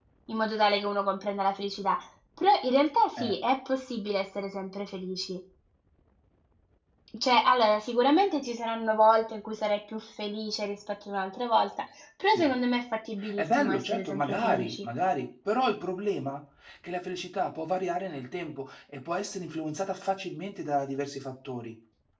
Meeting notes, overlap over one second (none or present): present